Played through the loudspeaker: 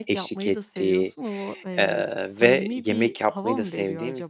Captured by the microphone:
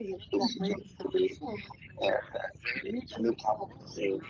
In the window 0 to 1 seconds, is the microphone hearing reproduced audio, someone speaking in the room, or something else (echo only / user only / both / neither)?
both